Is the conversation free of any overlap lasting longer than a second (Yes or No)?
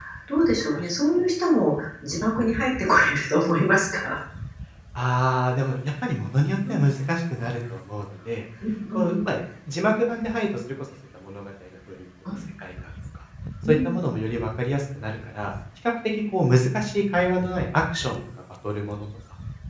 Yes